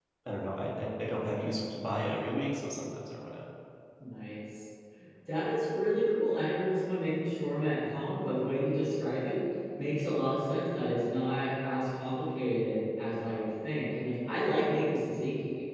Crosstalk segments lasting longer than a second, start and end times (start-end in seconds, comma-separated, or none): none